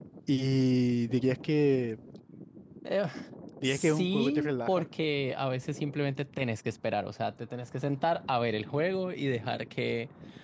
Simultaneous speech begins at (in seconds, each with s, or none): 3.6 s